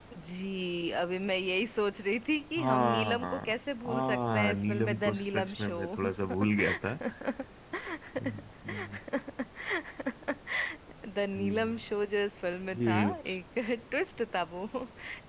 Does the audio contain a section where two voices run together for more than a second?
Yes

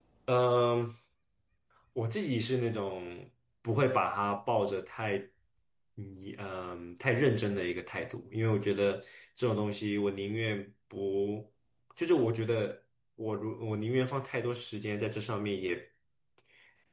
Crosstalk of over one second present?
No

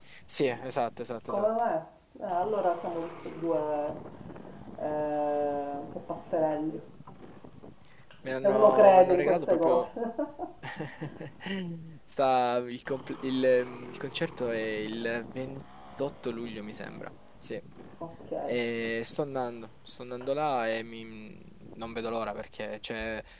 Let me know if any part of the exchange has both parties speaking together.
Yes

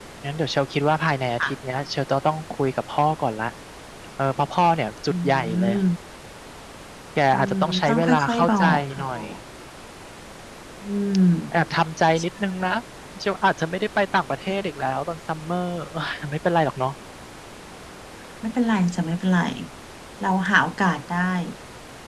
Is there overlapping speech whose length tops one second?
Yes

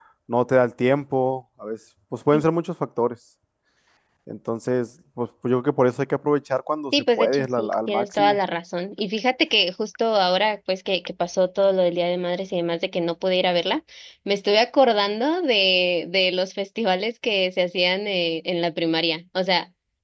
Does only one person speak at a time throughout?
No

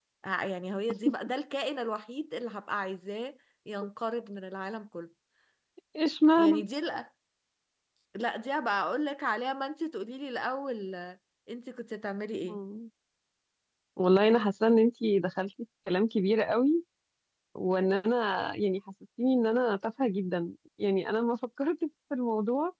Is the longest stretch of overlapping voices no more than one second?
Yes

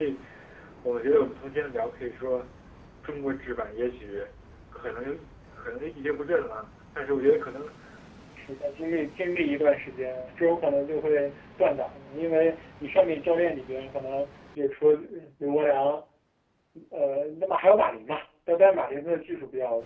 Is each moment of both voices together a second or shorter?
Yes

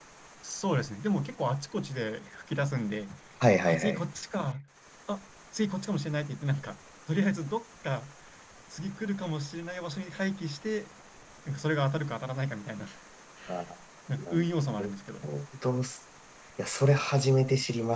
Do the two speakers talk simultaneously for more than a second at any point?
No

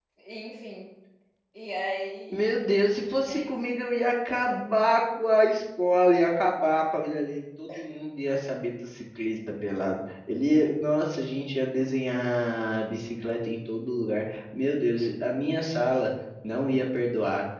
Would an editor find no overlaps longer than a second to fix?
Yes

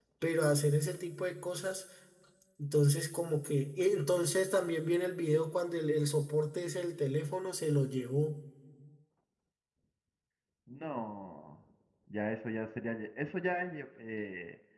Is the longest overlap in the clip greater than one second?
No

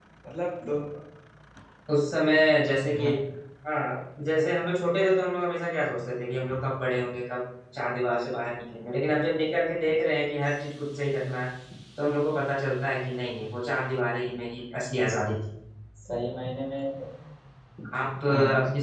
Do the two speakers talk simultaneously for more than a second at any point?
No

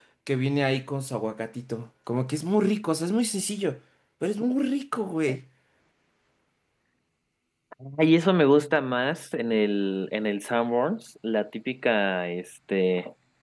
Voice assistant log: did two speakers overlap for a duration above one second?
No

